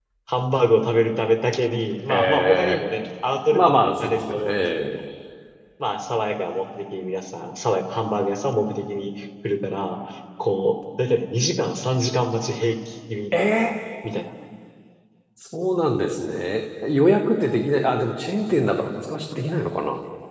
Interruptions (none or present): present